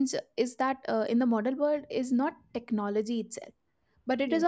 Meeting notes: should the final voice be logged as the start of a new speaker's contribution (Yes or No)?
No